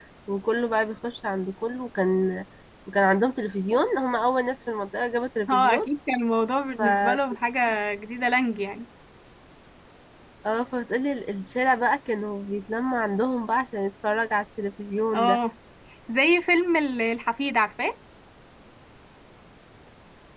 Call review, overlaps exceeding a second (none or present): none